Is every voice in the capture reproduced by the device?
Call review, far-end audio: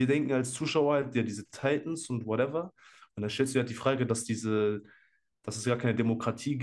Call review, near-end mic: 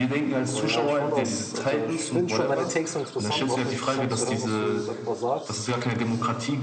No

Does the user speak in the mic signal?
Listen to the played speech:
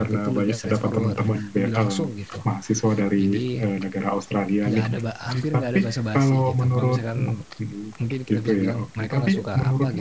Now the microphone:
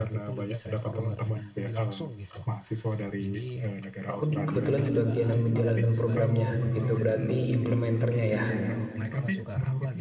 Yes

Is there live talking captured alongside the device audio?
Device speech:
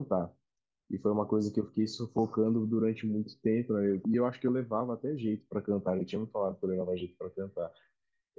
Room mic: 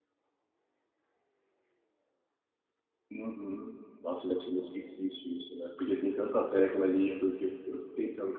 Yes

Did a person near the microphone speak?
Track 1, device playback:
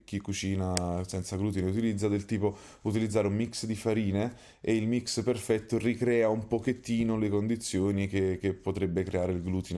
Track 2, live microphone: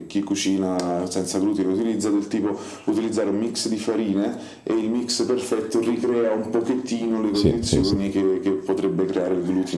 Yes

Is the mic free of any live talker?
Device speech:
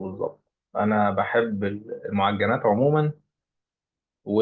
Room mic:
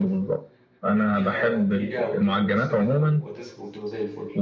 No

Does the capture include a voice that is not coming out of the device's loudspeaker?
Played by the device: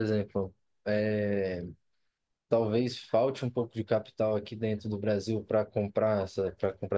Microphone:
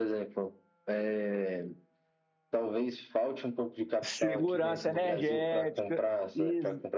Yes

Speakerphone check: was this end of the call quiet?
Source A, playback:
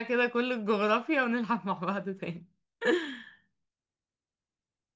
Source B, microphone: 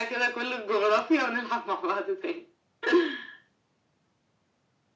Yes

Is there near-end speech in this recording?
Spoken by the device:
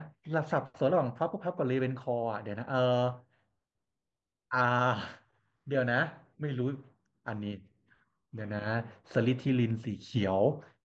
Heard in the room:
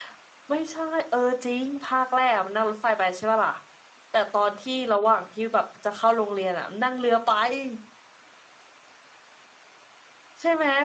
Yes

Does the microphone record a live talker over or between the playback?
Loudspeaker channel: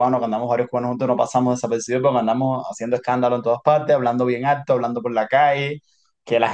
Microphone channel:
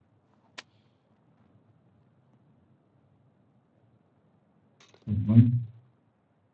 Yes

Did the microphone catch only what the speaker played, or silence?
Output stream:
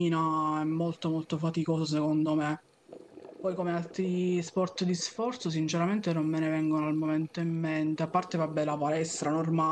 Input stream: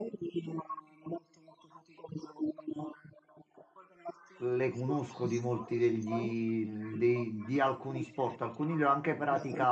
No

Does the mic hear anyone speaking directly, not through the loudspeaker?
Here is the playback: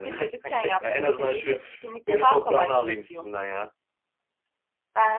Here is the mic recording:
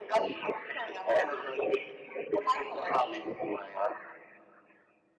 No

